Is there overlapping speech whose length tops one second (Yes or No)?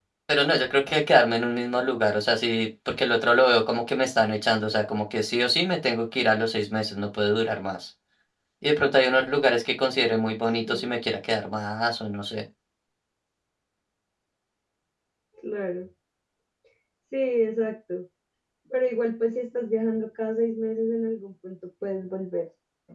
No